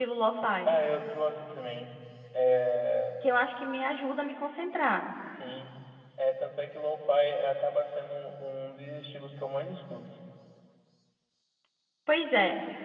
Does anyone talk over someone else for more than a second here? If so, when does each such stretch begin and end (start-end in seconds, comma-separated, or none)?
none